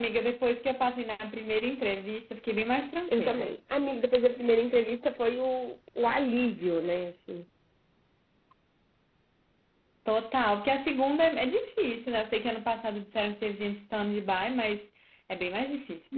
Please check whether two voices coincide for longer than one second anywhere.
No

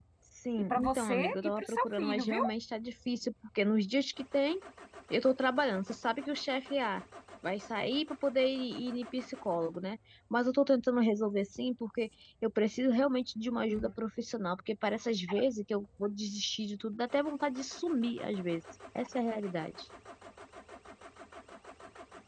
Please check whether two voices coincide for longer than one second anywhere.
Yes, from 0.6 s

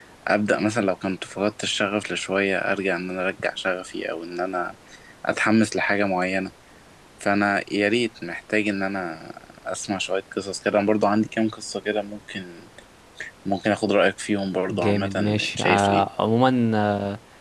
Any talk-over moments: Yes, from 14.7 s

